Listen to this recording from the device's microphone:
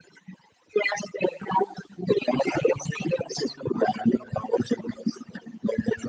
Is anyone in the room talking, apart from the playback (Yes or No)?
No